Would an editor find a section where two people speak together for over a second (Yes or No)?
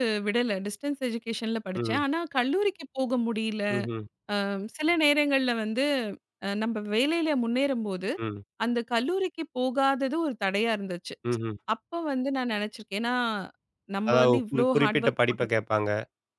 Yes